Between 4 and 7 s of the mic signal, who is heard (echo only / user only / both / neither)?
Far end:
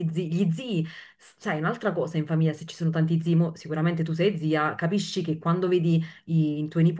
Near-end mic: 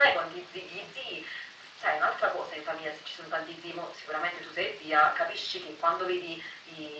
echo only